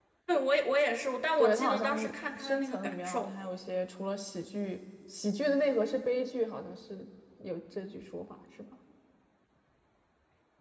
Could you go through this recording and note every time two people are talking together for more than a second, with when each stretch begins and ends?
1.4-3.3

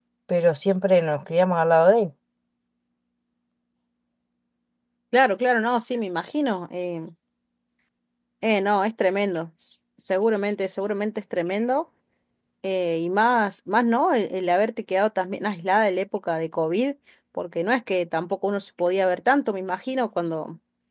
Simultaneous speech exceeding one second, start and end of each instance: none

